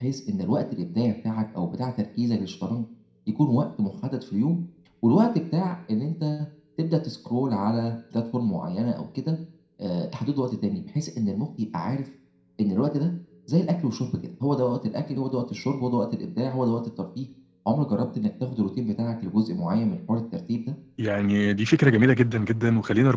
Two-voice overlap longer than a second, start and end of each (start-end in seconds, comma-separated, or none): none